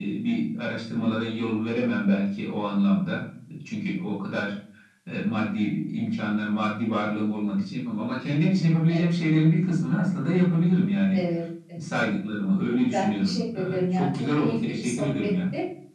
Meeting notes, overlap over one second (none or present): present